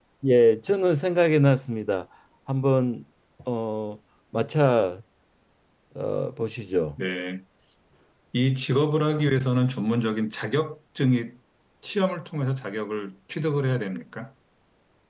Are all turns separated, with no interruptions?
Yes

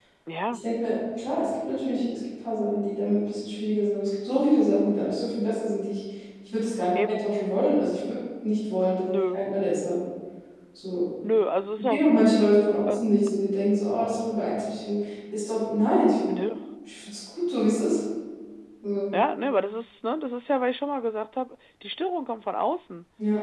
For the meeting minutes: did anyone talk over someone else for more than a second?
No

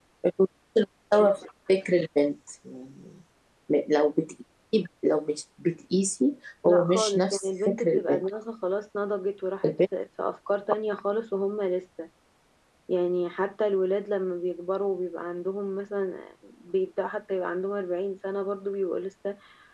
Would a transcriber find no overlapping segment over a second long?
No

